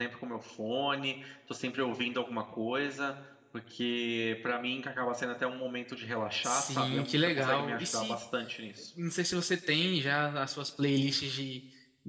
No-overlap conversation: No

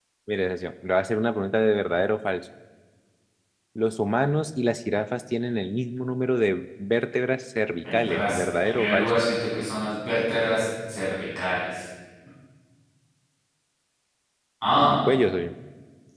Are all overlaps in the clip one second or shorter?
No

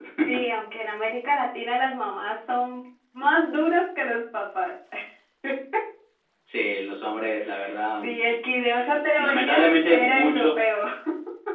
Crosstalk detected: Yes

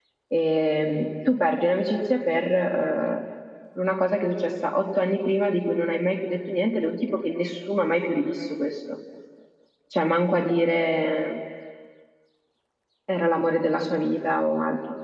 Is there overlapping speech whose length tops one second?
No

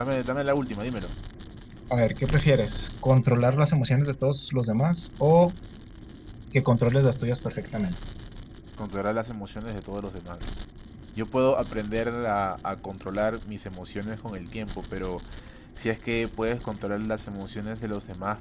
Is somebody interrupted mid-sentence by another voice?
No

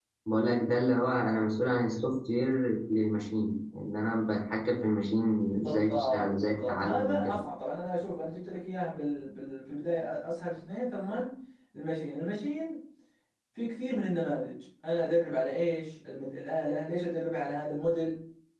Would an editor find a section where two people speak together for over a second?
Yes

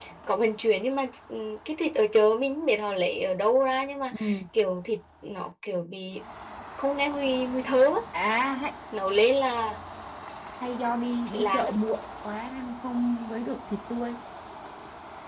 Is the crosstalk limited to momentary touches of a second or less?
Yes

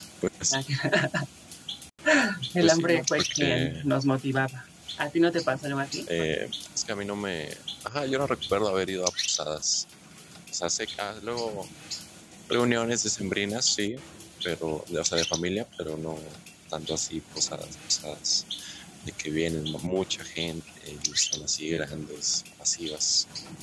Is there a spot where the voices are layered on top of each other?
Yes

